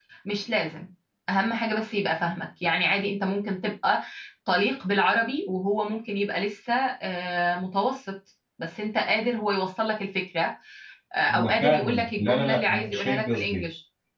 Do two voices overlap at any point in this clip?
Yes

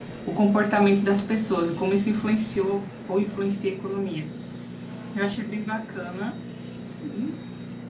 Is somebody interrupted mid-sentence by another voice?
No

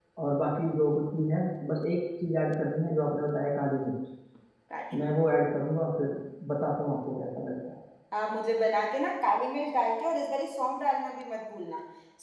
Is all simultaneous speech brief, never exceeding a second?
Yes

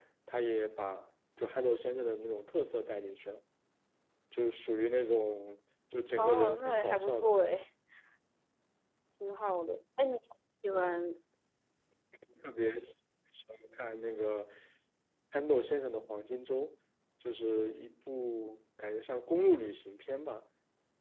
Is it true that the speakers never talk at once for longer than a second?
No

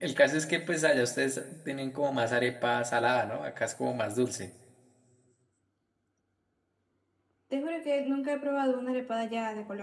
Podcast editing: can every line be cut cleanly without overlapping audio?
Yes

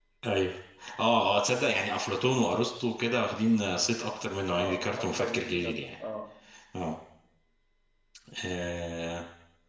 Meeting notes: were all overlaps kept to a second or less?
No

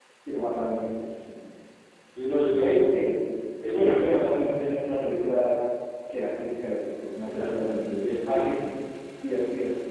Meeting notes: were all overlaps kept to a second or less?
No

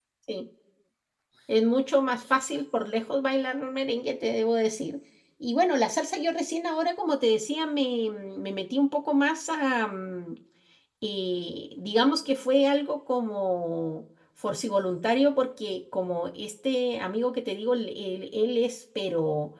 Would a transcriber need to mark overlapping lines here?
No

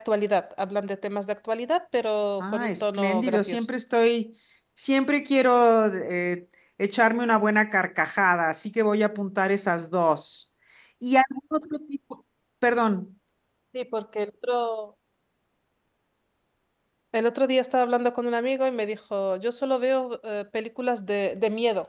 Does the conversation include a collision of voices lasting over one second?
Yes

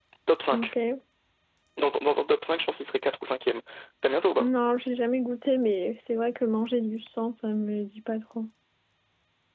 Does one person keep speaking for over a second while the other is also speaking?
No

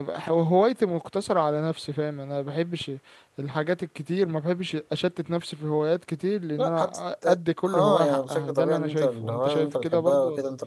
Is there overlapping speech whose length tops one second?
Yes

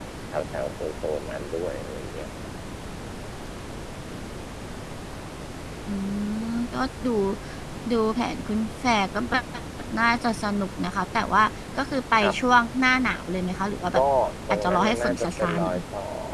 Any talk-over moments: Yes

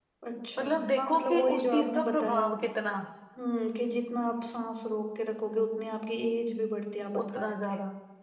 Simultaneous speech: Yes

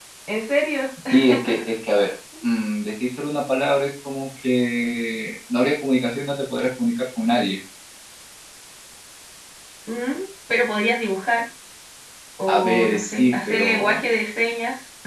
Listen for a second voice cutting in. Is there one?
Yes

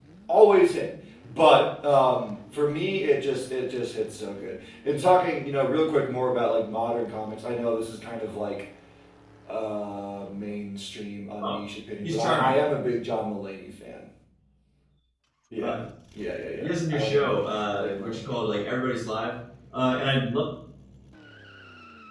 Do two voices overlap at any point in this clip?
Yes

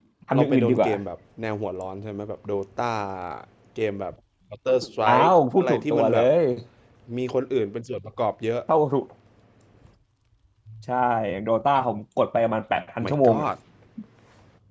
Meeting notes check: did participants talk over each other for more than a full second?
Yes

